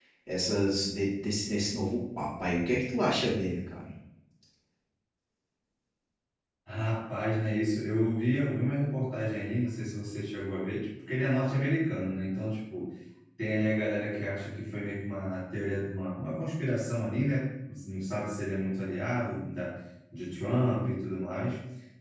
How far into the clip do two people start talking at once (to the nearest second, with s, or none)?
none